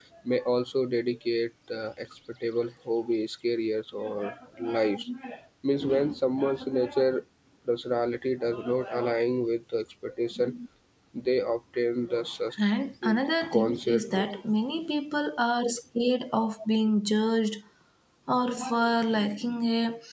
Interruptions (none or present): present